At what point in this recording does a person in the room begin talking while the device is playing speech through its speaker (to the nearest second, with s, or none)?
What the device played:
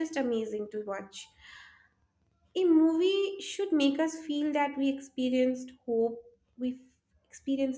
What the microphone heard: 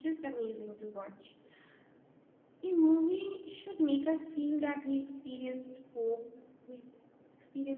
none